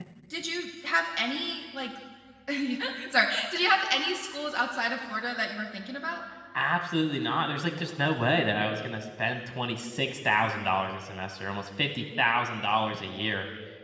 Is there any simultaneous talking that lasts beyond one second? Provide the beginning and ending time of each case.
none

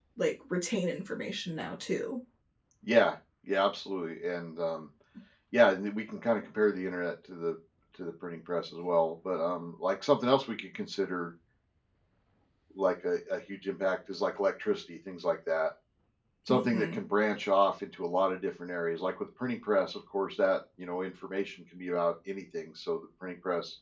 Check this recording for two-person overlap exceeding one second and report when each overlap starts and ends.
none

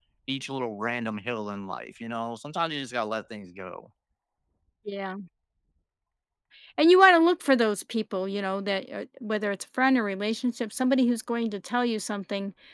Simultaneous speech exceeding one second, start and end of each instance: none

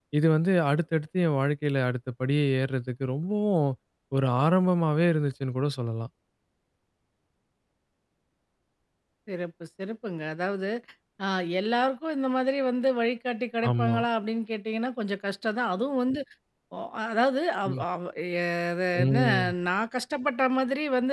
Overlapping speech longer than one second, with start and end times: none

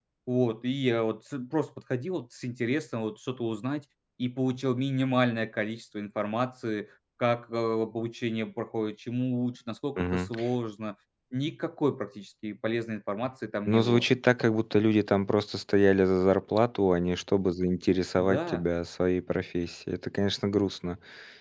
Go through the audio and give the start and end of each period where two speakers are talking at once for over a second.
none

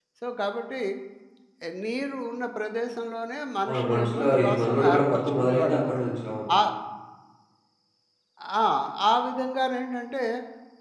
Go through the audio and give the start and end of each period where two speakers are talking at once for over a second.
3.7-6.0

